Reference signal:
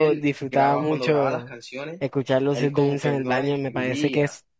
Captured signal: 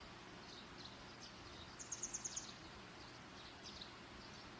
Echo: none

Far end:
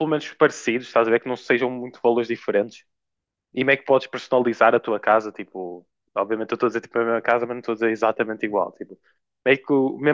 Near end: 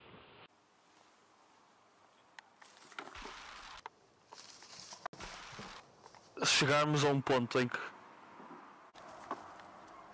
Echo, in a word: none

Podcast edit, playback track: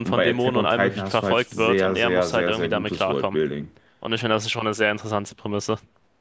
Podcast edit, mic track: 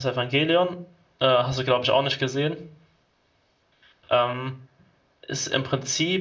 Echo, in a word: none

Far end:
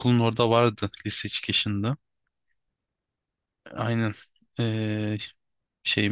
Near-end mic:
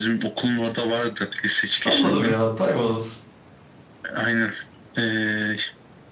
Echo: present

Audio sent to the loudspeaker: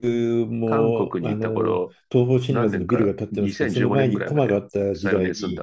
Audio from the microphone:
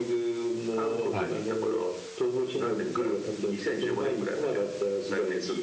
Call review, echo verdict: present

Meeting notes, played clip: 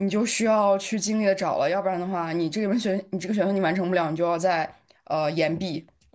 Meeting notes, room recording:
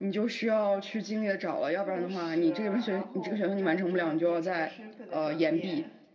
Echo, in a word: present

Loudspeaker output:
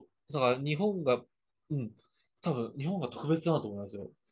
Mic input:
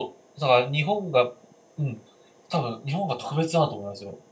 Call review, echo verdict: present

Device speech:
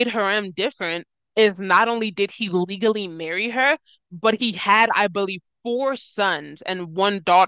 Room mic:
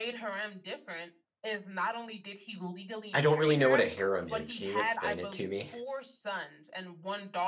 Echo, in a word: present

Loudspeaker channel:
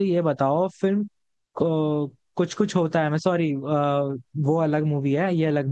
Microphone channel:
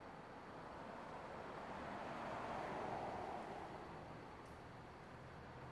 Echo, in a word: none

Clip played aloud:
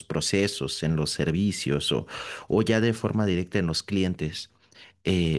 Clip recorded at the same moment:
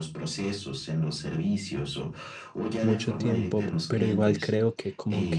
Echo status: present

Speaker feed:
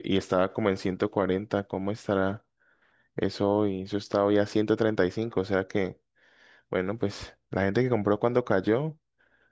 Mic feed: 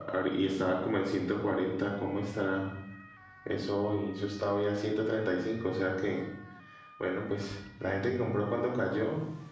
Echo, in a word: present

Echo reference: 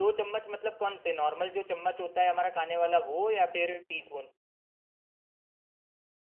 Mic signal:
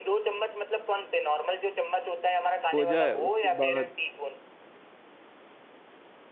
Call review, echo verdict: present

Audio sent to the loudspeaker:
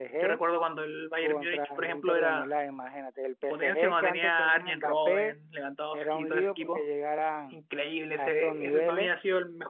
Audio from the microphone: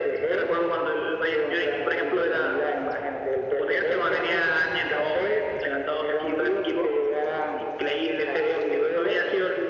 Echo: present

